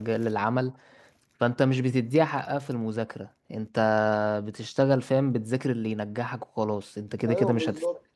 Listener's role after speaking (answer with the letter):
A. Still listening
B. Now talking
B